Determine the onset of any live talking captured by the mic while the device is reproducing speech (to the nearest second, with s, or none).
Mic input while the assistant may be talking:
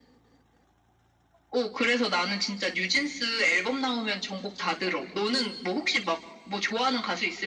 none